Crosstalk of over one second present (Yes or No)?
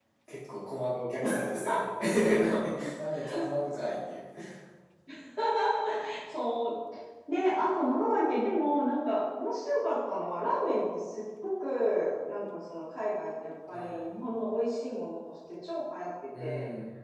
No